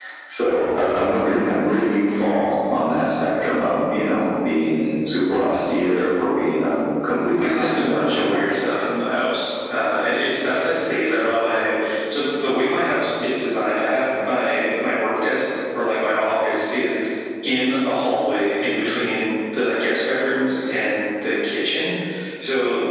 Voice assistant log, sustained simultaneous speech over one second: present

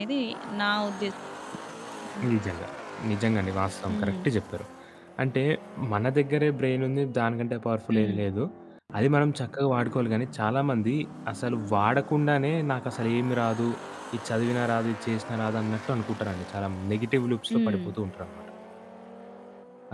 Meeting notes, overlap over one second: none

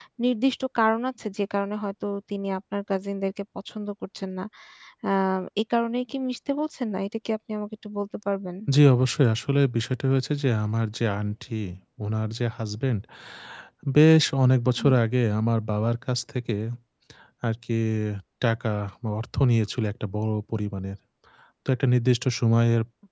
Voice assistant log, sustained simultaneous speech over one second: none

